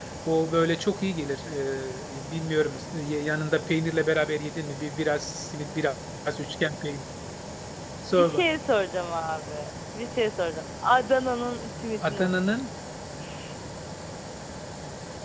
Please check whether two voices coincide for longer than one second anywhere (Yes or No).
No